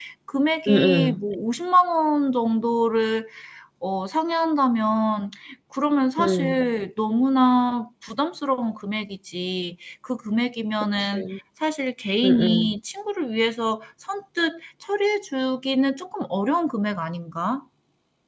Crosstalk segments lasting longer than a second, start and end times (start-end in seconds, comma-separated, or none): none